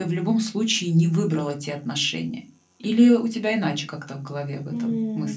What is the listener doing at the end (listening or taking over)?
taking over